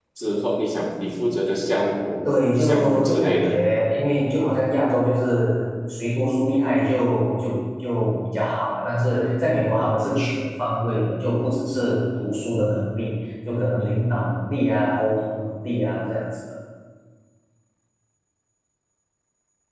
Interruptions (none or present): present